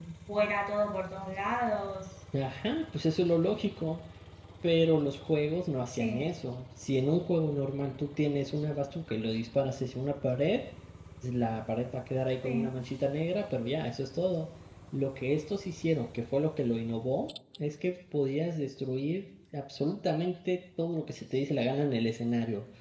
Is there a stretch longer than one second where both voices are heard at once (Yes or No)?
No